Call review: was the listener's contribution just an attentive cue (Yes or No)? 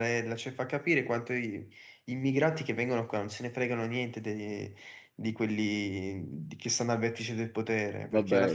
No